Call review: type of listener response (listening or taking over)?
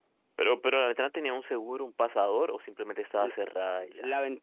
taking over